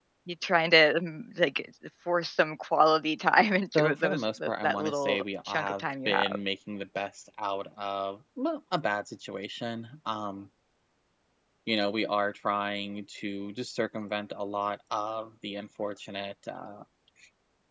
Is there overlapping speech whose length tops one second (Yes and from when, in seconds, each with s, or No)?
Yes, from 3.8 s